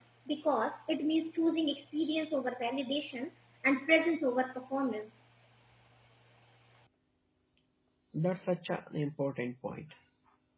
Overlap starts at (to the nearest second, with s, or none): none